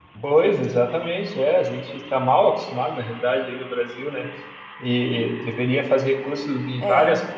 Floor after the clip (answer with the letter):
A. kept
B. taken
A